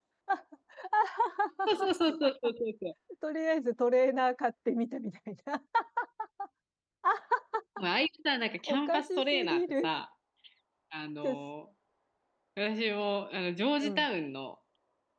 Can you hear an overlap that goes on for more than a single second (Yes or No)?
Yes